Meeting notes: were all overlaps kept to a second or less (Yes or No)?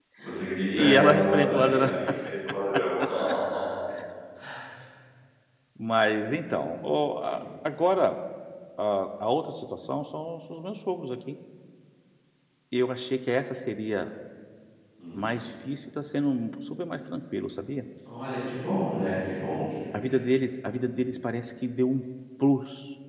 No